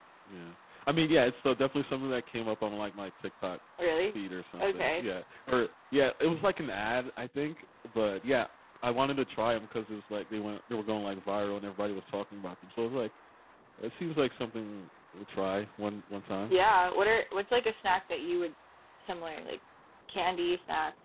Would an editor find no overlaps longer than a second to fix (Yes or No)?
Yes